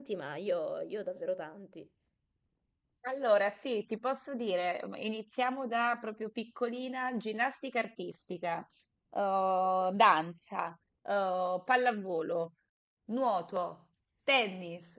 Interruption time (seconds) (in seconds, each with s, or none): none